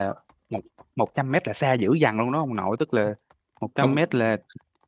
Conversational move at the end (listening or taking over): listening